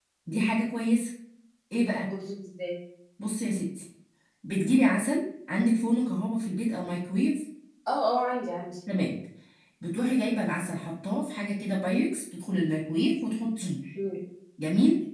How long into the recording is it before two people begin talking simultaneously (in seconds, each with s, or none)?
none